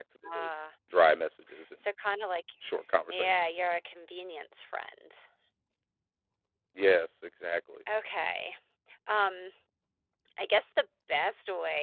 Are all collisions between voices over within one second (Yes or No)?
Yes